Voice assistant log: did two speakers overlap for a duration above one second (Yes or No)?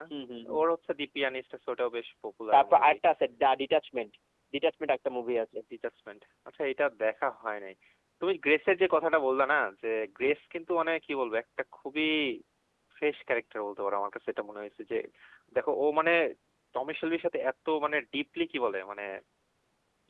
No